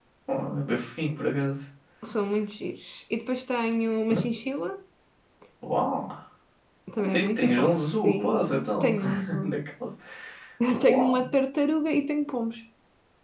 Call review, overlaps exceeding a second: present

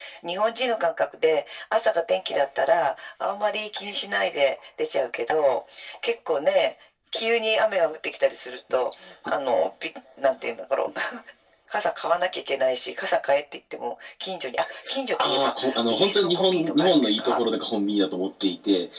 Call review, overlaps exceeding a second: present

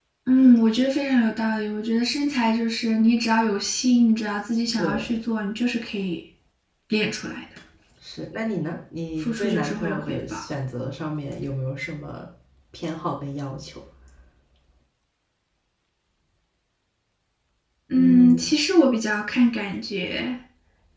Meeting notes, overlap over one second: present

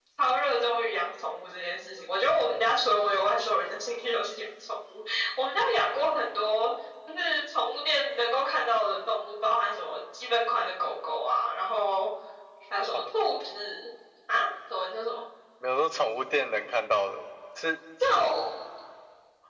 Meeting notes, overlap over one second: none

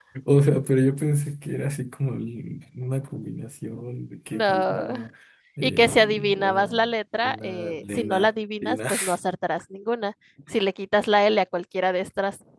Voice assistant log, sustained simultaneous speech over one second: present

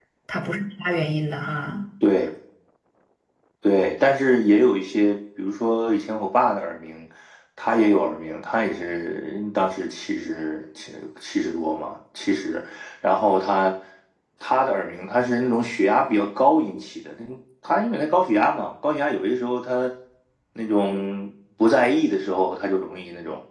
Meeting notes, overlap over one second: none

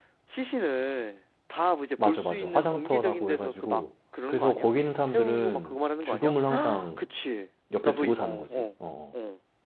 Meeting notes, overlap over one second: present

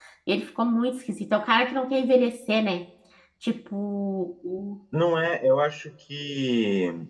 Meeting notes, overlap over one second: none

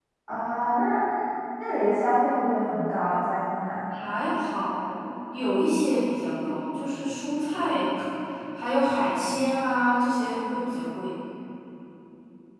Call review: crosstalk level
none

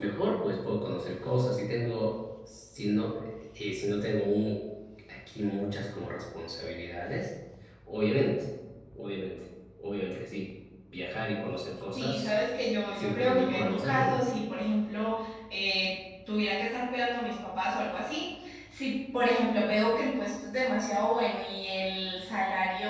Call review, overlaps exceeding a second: present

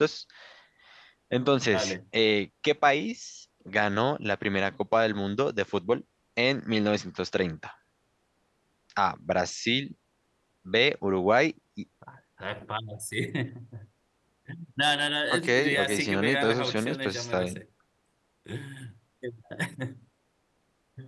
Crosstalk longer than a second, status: present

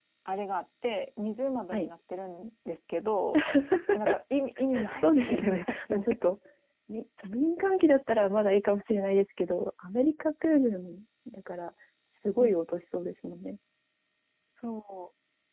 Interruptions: present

